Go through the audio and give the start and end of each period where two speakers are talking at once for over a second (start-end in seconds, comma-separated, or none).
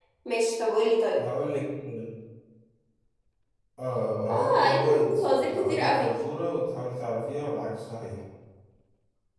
4.3-6.1